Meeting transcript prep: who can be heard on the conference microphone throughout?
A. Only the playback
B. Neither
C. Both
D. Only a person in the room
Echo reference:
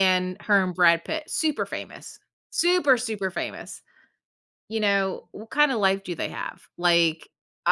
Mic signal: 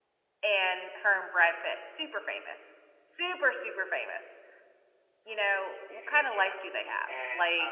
C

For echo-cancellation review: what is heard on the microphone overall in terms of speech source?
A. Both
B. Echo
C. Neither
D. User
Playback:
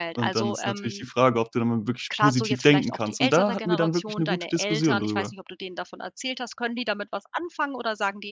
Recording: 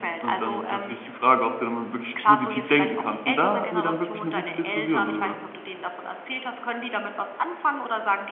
B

